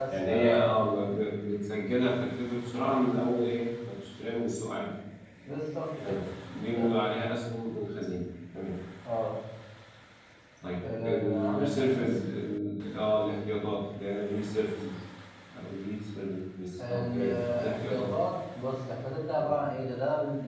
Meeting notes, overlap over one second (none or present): present